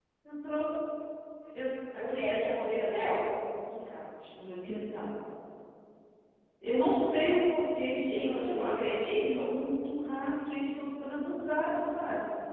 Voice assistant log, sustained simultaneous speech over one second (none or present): present